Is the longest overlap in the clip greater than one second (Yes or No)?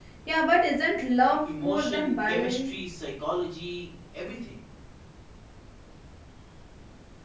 Yes